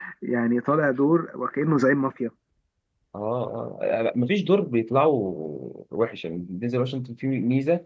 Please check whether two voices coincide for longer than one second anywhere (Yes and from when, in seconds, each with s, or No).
No